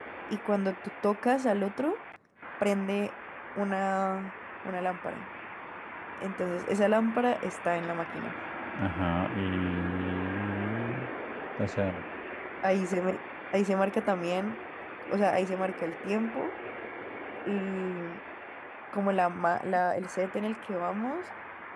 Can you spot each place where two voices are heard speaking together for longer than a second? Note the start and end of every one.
none

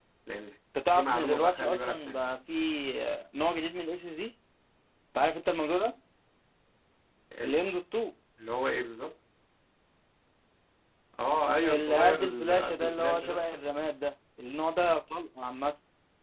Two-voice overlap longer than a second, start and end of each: 0.9-2.2, 11.7-13.4

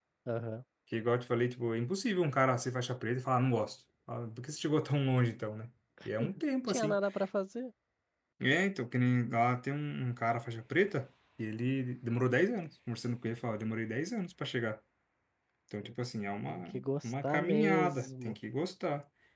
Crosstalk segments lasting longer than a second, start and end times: 16.5-18.4

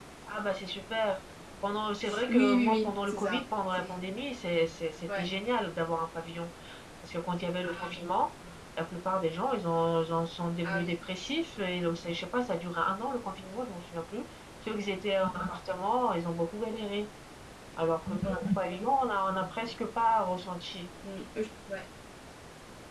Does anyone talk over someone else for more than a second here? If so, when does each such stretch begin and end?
2.3-4.0

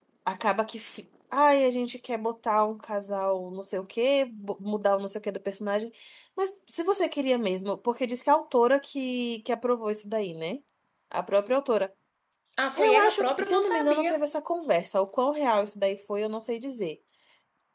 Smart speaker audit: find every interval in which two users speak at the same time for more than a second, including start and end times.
12.8-14.1

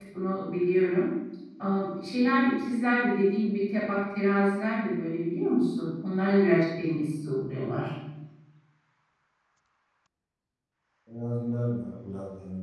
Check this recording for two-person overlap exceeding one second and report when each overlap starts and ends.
none

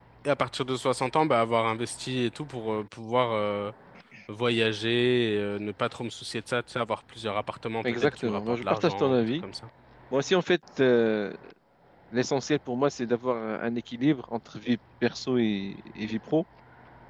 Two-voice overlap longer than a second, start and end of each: 7.8-9.2

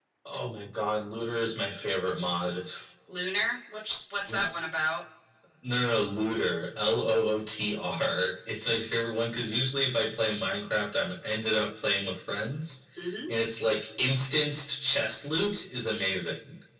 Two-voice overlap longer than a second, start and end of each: none

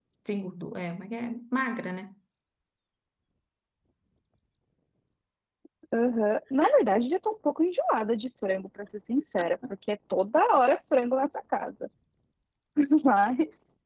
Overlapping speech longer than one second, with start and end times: none

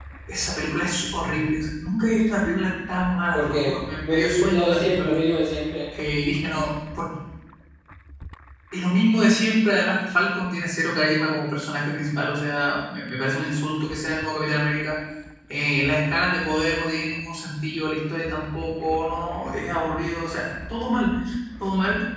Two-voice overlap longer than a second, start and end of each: 3.3-5.1

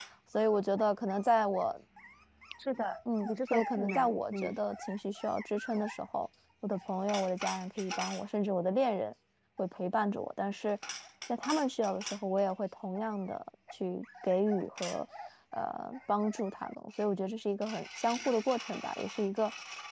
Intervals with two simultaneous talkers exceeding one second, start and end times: 3.2-4.6

